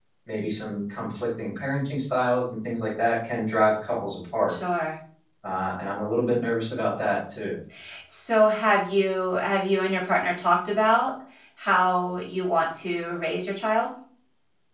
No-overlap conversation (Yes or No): Yes